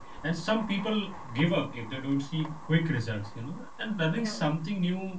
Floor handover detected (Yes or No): No